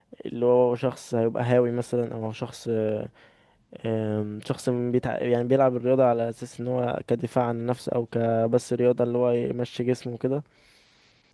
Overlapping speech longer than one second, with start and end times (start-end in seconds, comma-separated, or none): none